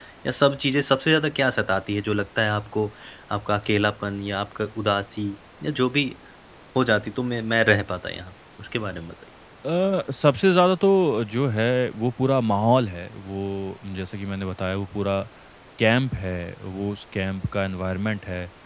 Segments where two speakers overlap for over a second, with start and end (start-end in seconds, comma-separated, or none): none